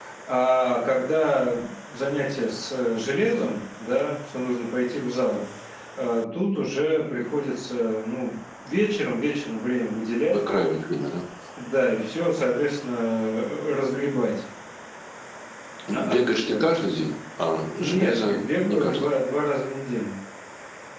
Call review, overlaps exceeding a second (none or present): present